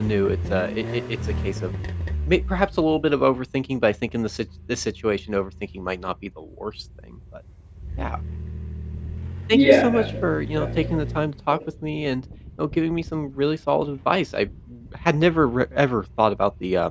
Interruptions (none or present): present